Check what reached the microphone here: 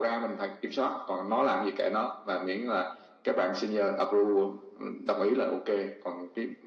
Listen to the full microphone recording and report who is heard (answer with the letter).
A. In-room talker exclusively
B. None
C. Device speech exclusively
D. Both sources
C